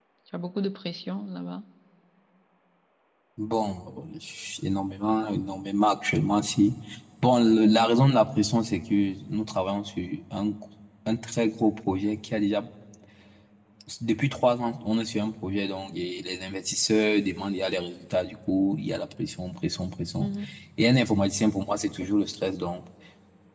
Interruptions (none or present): none